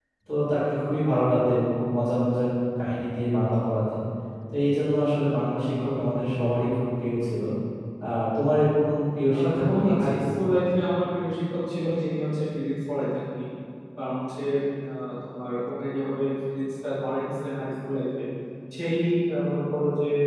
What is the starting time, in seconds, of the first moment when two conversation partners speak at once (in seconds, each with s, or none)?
9.3 s